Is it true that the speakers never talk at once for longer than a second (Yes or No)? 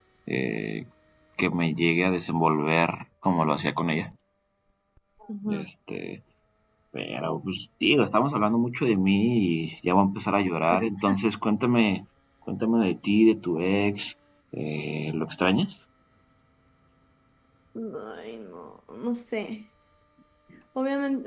Yes